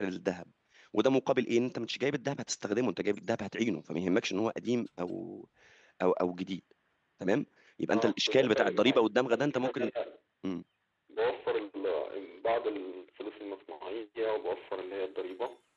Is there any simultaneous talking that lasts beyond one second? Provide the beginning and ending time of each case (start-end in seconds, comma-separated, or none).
7.9-9.9